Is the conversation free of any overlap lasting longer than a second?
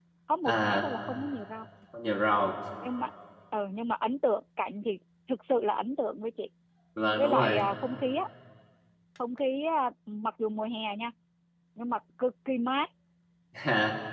Yes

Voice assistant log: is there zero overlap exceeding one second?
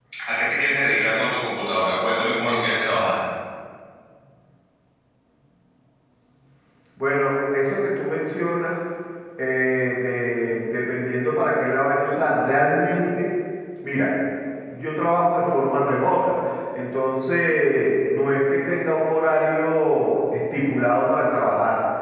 Yes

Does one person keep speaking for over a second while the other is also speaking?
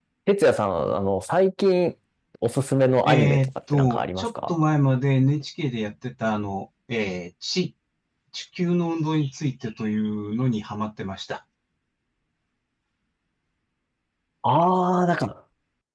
Yes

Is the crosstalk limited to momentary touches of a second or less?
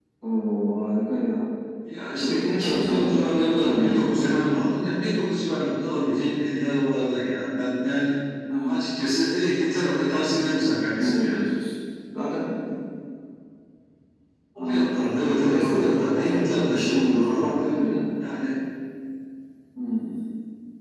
No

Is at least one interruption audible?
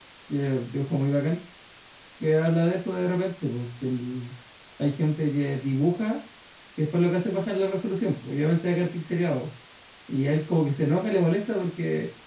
No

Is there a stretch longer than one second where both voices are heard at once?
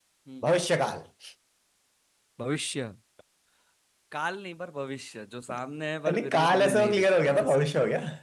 Yes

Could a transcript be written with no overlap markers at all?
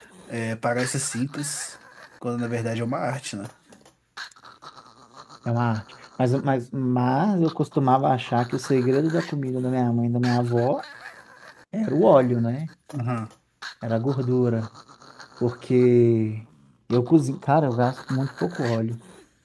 Yes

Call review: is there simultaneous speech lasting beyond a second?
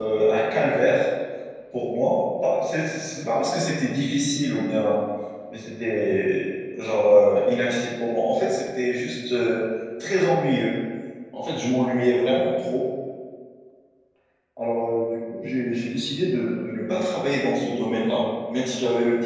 No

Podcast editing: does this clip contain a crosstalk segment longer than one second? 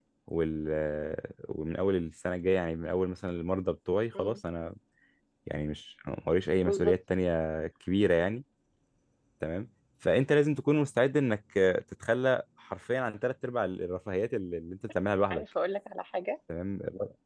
No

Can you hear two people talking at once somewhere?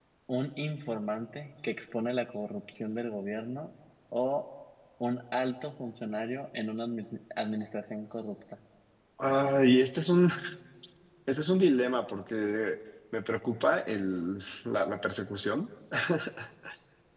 No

